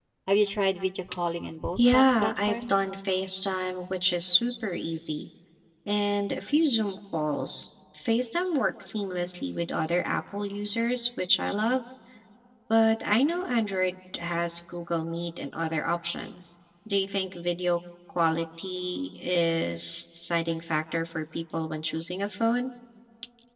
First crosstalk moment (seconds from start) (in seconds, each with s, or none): 1.8 s